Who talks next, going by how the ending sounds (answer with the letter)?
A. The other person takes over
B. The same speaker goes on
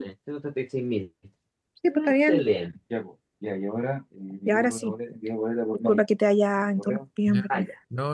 A